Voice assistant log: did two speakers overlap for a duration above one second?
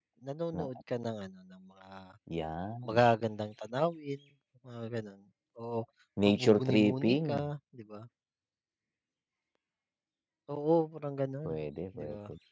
Yes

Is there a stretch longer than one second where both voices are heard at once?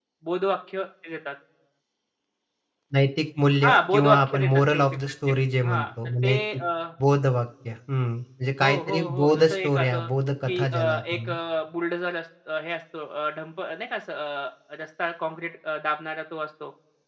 Yes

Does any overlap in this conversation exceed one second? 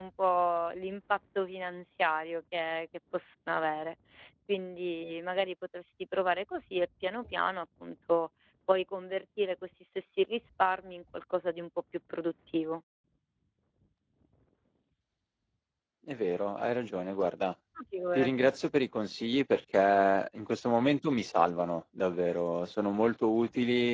No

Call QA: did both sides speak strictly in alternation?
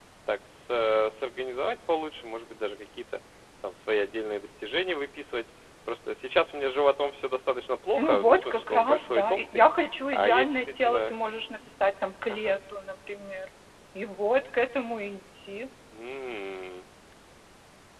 No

